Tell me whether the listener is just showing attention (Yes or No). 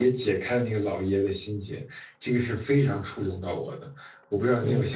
No